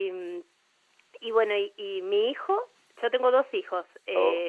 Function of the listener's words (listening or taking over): listening